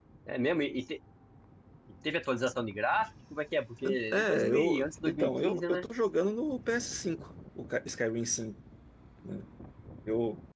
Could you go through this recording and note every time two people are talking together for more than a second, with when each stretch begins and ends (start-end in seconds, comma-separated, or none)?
4.1-5.8